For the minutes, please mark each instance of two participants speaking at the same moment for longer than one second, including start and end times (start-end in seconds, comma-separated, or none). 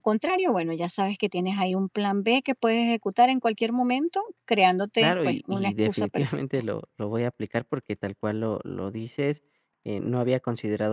5.0-6.4